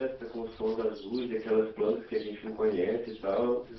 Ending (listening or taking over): taking over